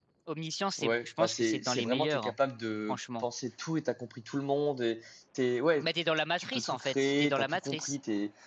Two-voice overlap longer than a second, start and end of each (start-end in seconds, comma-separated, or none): 0.8-2.3, 6.4-8.0